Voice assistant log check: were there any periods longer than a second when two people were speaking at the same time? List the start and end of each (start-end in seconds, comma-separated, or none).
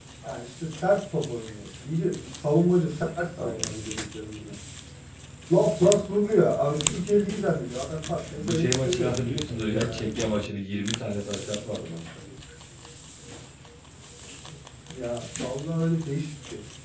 8.3-10.1